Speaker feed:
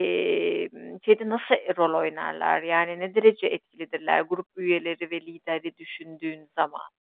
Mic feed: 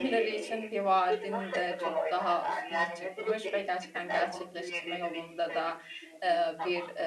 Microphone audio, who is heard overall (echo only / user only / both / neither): both